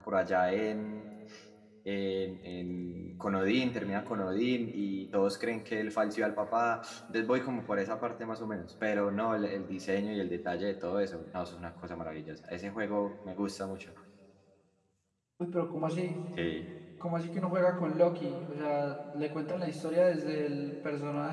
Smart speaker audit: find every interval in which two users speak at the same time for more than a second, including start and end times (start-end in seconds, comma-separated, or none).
none